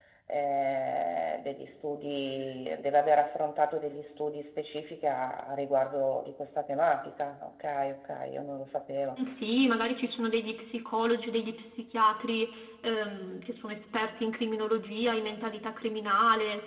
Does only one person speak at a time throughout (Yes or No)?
Yes